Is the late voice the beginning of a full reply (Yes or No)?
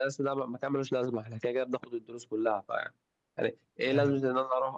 No